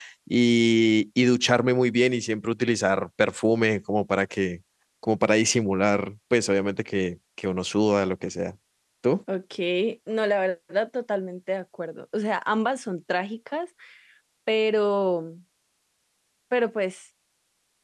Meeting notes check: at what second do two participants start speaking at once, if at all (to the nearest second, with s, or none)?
none